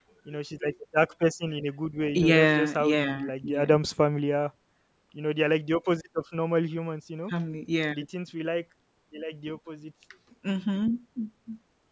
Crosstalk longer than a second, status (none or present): present